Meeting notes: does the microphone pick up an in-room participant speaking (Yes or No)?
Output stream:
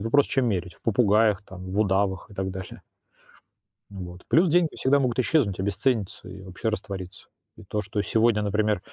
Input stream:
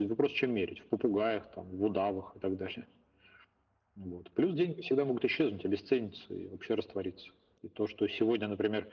No